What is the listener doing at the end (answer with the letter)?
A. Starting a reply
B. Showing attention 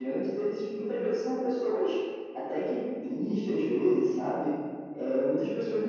B